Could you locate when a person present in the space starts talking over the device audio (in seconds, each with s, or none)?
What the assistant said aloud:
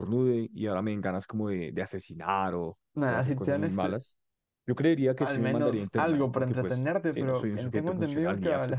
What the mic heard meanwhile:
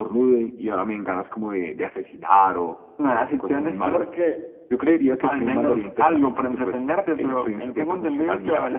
3.8 s